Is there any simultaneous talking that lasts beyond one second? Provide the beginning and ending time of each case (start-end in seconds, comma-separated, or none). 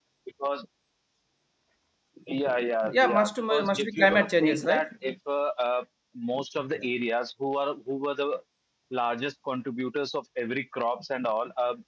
2.9-4.9